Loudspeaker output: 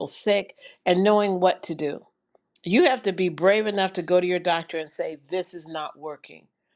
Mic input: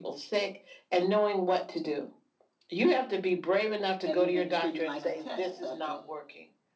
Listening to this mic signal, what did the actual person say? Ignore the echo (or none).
have you been treating like a test subject